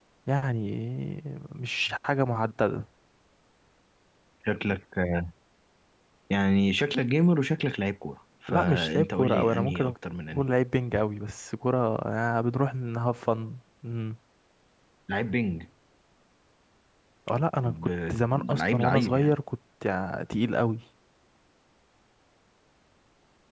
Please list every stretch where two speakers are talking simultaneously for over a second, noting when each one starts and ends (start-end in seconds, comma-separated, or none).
8.5-9.9, 17.6-19.3